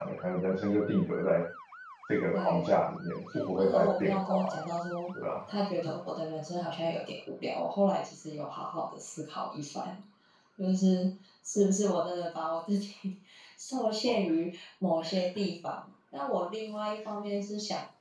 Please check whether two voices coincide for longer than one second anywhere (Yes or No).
Yes